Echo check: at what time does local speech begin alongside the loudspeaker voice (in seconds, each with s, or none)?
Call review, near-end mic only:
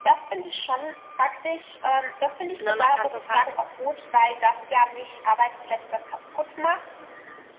2.6 s